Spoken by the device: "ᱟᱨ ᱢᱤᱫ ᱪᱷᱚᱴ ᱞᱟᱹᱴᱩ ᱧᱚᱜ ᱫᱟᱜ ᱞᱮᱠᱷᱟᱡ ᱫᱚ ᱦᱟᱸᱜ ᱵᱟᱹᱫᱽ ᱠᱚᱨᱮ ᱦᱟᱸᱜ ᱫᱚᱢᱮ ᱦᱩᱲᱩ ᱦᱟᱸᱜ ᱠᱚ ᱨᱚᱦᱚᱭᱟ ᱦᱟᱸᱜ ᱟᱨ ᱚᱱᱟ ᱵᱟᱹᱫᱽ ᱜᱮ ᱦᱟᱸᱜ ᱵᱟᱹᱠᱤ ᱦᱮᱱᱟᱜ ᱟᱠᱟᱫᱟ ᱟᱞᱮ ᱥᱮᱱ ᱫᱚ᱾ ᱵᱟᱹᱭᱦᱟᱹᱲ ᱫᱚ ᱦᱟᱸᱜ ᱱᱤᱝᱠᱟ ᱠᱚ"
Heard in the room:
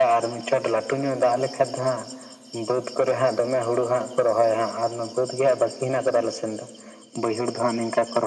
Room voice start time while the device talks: none

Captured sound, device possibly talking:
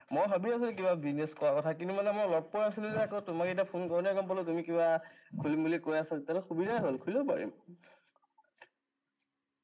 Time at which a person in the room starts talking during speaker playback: none

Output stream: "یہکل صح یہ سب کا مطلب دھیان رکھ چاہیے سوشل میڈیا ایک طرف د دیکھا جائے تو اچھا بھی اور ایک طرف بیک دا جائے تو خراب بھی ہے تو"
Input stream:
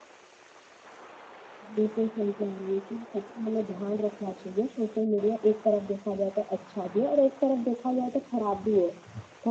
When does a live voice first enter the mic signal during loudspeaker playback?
none

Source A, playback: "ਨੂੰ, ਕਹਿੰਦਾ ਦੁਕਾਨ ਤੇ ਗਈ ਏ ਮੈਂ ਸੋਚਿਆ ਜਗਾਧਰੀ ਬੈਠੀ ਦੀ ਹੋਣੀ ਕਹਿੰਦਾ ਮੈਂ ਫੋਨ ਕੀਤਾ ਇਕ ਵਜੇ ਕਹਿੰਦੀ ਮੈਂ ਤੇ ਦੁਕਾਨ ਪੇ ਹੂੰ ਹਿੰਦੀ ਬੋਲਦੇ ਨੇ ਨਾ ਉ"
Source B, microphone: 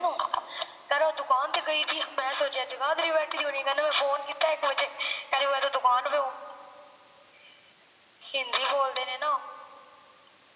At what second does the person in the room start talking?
none

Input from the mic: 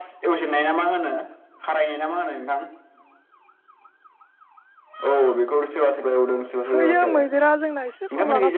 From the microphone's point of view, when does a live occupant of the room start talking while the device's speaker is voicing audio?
7 s

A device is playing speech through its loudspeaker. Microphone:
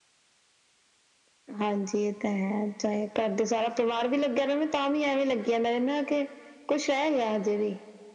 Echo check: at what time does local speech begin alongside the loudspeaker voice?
none

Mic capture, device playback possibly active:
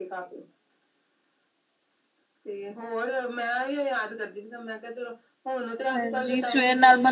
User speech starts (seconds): 6 s

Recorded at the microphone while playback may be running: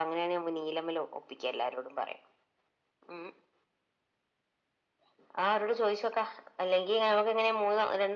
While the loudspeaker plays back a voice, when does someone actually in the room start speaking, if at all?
none

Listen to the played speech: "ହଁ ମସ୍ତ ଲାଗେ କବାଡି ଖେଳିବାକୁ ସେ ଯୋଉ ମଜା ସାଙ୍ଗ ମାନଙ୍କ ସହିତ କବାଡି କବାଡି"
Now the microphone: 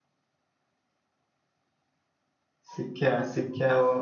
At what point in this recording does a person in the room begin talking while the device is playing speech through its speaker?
3 s

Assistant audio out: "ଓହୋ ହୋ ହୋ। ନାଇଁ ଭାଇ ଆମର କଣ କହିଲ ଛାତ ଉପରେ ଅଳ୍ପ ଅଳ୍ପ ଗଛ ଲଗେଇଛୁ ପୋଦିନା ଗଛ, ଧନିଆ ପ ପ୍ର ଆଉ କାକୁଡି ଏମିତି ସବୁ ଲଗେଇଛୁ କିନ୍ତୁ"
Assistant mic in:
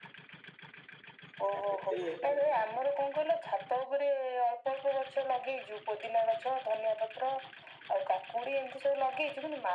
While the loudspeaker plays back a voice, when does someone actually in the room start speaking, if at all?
1 s

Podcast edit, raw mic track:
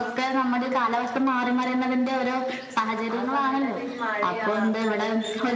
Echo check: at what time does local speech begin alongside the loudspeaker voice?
3 s

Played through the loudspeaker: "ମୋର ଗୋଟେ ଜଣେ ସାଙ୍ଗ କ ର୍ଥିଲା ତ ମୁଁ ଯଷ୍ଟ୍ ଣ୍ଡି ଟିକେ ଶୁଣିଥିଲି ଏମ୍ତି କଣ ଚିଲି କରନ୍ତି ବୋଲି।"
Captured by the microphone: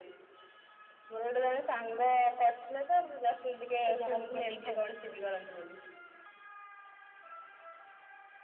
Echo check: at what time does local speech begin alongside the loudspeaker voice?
4 s

